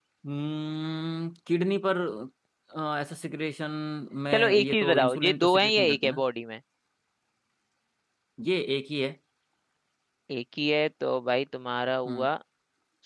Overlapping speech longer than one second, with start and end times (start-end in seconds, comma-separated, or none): 4.3-6.2